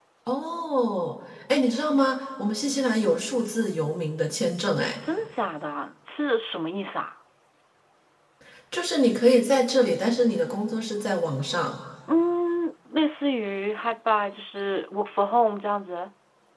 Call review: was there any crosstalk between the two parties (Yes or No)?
No